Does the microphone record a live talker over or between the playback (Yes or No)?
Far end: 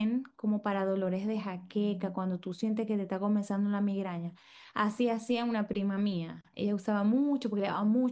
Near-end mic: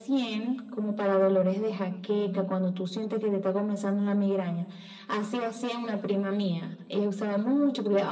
No